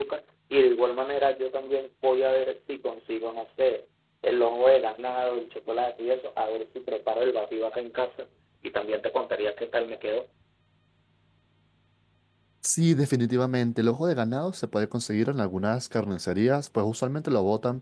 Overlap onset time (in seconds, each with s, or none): none